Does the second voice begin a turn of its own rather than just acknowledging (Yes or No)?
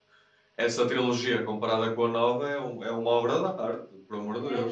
Yes